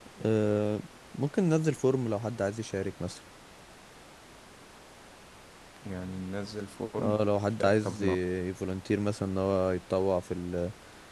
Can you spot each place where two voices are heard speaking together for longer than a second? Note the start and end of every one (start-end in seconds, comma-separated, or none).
none